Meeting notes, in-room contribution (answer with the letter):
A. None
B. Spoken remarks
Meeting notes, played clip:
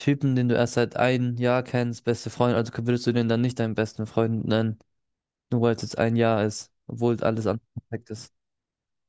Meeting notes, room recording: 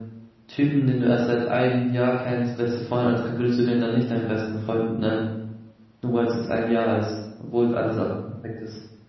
A